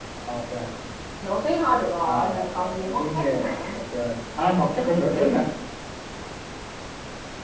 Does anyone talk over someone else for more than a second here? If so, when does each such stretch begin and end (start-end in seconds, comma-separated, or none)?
2.0-3.6